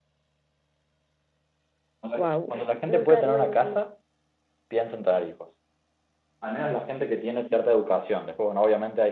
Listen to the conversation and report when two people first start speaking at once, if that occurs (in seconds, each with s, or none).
2.2 s